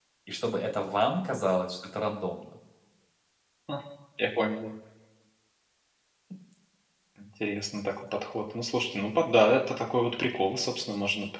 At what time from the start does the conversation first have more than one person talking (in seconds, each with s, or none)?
none